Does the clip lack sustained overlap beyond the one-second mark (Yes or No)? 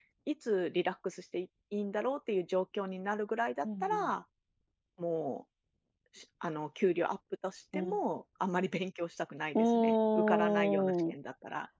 No